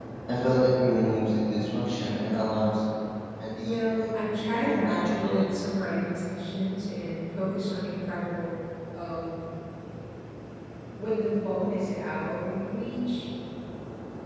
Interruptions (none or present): present